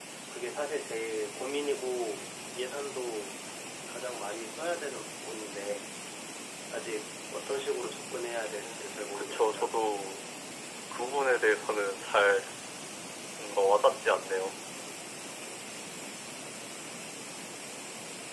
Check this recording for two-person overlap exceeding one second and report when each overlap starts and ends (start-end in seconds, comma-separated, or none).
8.4-9.7